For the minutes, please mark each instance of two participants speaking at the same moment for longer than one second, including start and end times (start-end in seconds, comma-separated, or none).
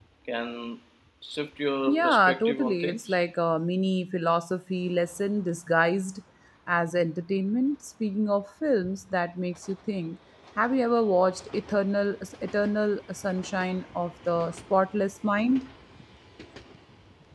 1.9-3.2